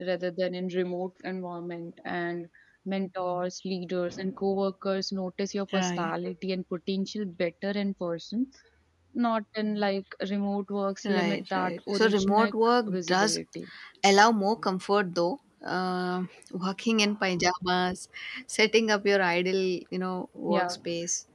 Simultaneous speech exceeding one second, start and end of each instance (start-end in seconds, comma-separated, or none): 11.0-12.5